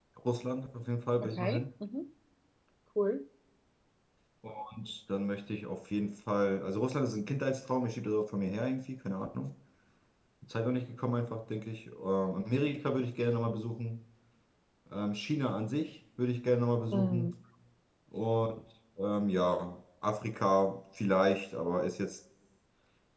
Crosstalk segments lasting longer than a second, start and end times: none

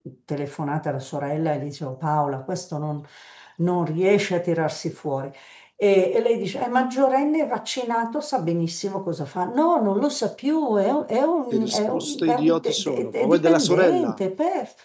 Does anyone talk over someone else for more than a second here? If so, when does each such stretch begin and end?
11.5-14.2

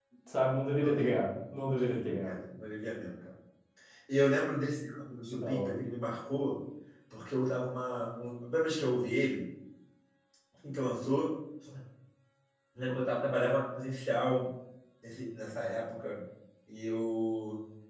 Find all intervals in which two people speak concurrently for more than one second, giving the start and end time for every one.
0.8-2.4

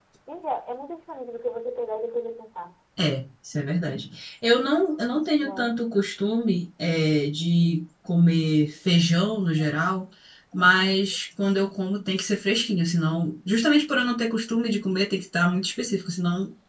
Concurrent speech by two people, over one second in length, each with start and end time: none

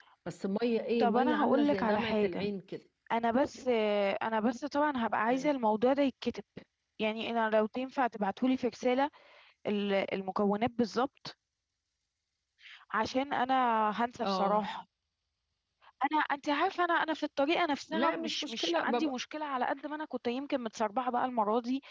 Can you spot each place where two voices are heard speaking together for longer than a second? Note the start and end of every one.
1.0-2.5, 17.9-19.1

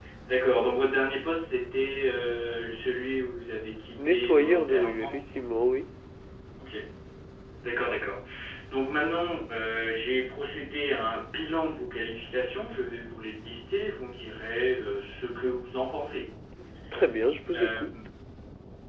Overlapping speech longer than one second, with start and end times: 4.0-5.2

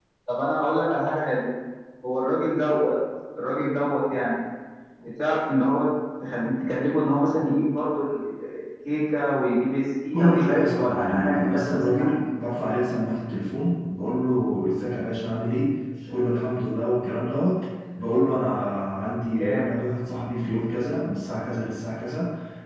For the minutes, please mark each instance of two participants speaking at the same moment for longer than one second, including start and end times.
10.1-12.2

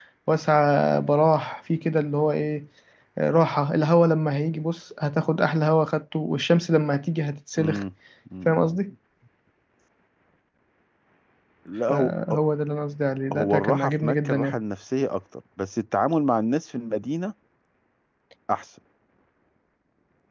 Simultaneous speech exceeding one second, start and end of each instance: 13.3-14.6

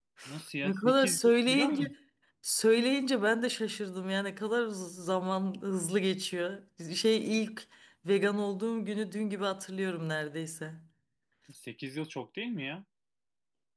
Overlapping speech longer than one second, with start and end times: 0.6-1.9

